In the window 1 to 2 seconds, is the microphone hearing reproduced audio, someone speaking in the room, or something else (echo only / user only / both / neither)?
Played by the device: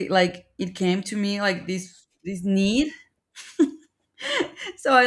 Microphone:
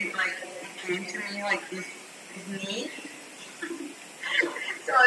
echo only